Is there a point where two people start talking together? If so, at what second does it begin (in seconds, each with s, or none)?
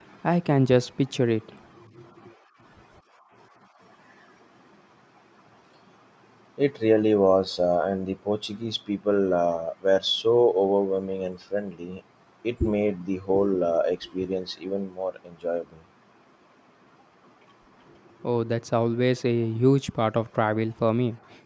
none